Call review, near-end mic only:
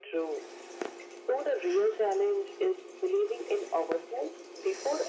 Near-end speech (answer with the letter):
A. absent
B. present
A